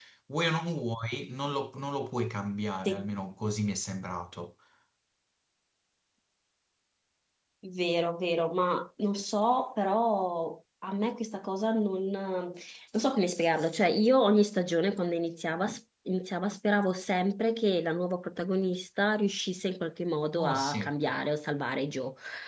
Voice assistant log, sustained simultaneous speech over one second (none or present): none